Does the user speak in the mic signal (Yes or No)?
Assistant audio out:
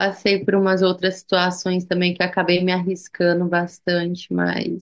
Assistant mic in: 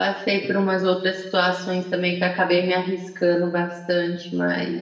No